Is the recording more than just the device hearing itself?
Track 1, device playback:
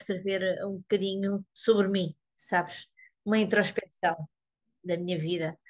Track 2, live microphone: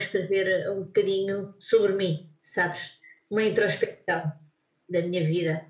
No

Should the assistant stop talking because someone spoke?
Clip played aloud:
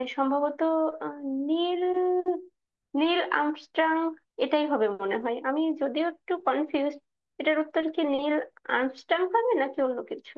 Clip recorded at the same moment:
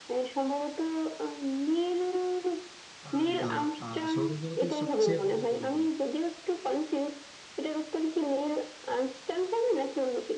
Yes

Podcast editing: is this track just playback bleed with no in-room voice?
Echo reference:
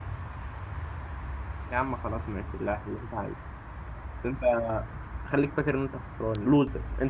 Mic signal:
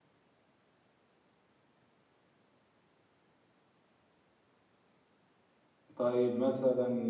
No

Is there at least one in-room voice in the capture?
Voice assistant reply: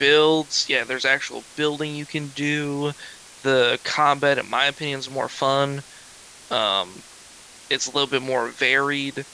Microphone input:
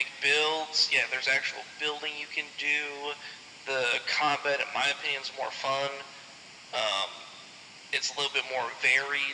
No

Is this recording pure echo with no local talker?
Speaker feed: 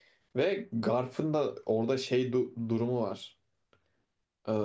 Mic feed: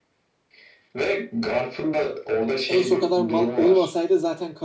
No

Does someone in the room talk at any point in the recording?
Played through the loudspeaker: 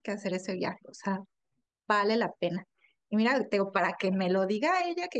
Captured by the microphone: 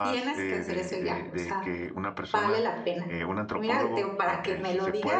Yes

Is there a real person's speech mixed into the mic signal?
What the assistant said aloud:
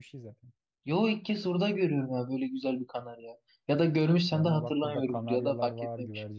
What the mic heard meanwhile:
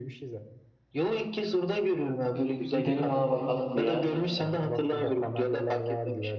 Yes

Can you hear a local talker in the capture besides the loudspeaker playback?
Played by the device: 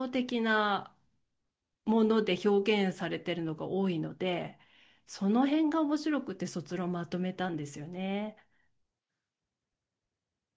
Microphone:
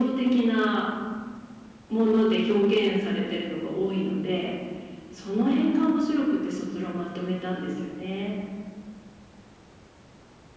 No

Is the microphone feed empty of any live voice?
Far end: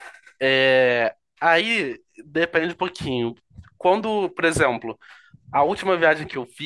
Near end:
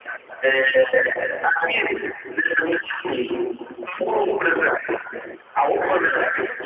No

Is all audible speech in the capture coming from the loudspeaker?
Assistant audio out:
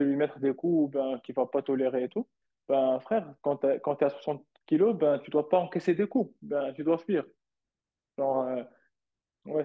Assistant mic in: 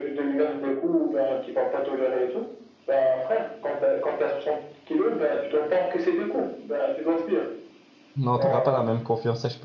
No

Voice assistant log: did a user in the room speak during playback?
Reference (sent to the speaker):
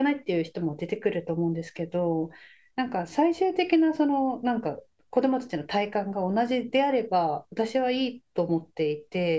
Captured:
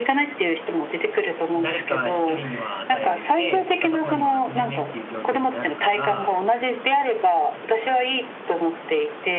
Yes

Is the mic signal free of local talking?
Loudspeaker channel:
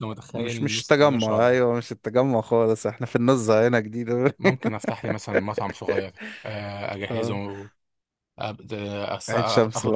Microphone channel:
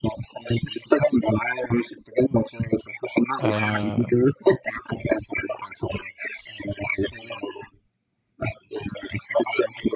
No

